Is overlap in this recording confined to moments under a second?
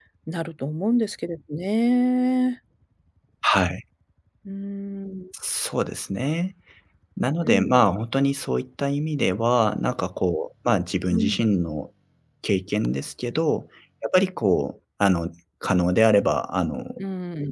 Yes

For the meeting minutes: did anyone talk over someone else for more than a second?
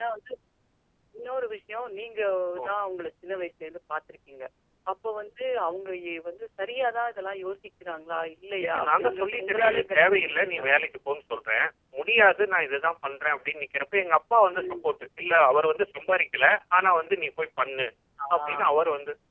Yes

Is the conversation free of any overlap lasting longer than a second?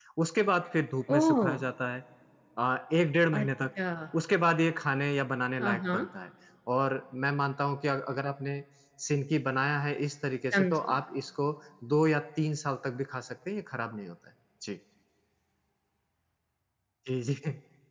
Yes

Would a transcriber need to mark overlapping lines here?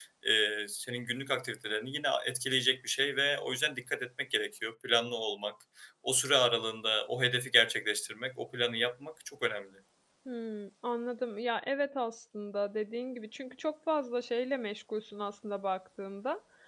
No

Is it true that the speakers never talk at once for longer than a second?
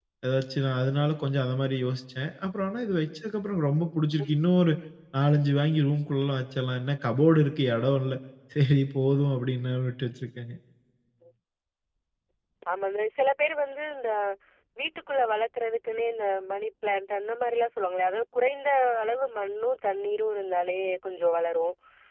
Yes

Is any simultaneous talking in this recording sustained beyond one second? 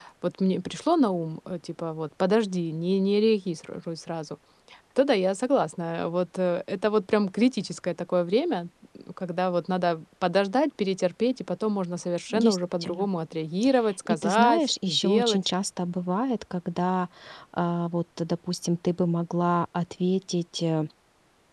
Yes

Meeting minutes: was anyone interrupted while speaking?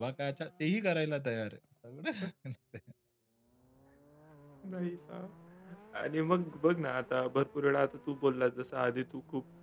No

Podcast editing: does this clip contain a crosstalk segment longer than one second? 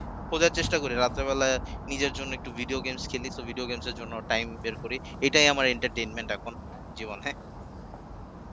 No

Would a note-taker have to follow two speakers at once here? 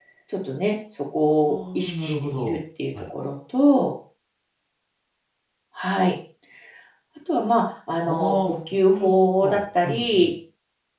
Yes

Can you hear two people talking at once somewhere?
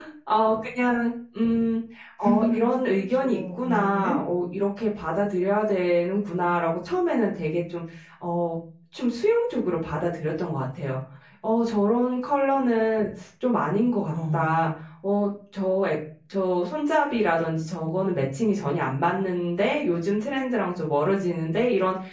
Yes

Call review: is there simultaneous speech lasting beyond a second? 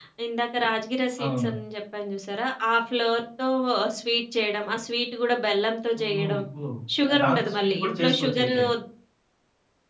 Yes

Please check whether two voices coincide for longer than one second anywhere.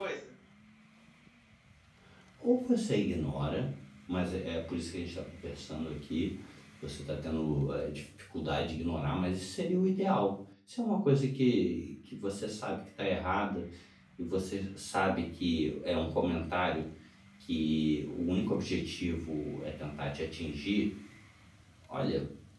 No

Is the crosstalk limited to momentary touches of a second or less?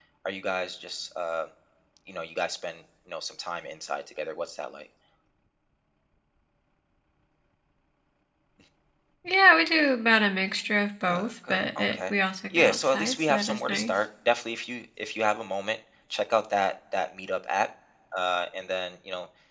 No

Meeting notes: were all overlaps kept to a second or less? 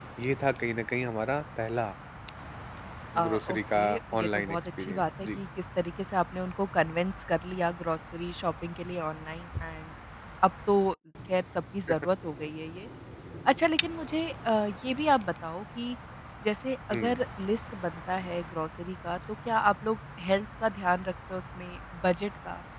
No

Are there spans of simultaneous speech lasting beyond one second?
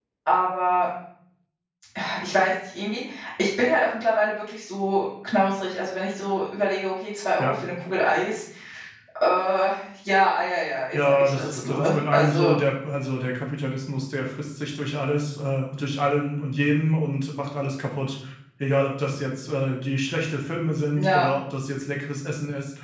Yes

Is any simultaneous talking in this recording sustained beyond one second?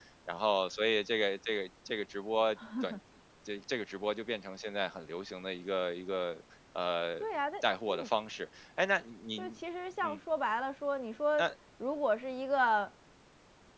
No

